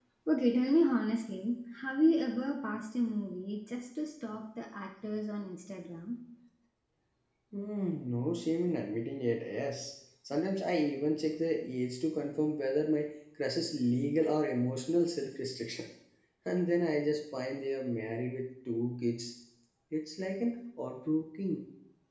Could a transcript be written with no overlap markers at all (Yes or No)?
Yes